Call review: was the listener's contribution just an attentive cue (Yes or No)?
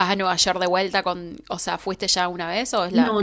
No